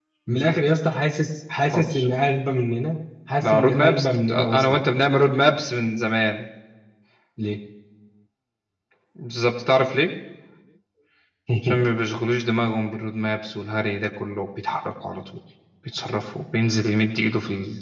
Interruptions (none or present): present